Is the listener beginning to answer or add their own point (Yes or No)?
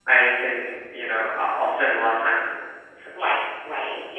Yes